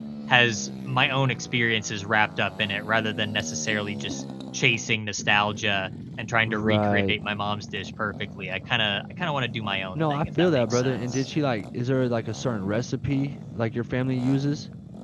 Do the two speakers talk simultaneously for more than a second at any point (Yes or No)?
Yes